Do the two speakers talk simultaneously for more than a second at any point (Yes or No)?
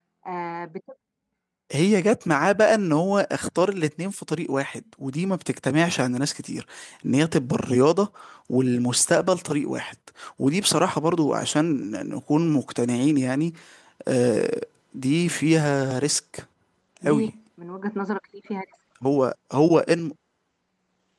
No